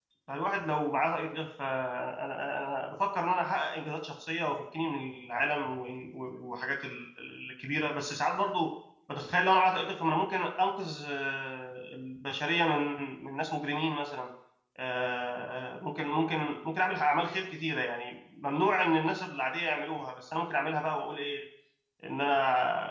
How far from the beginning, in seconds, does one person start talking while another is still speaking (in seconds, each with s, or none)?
none